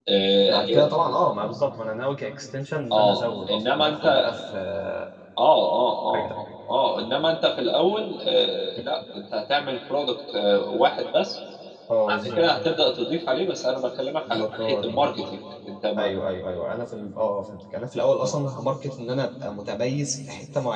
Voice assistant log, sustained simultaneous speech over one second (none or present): present